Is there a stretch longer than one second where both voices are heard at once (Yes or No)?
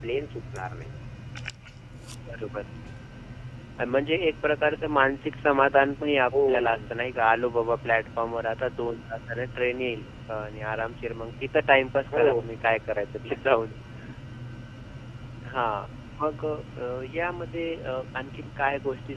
No